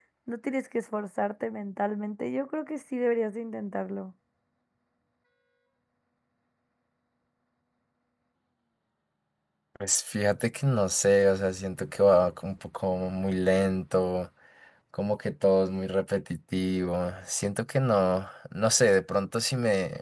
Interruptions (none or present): none